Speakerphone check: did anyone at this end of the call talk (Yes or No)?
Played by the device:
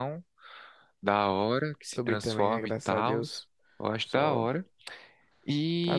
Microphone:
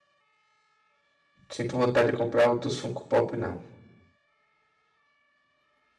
Yes